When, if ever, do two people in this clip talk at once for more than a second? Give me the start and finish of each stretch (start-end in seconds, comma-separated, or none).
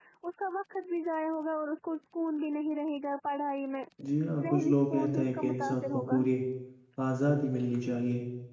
4.4-6.2